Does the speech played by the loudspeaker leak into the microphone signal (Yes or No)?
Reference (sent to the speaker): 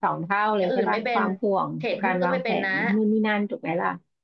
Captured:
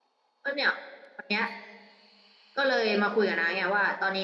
No